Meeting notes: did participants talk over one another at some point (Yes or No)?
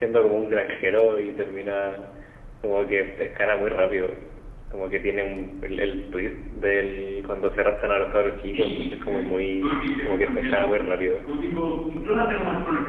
Yes